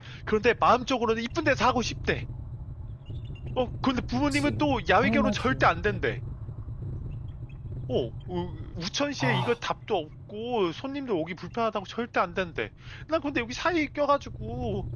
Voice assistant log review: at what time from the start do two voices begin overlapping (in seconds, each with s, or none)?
4.3 s